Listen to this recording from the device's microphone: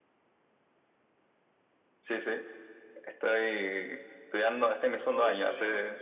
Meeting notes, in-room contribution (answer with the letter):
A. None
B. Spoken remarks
B